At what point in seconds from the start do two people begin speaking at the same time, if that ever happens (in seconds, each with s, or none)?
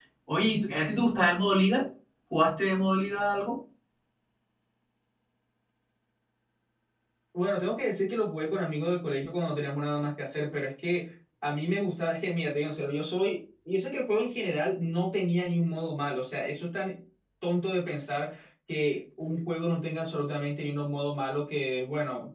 none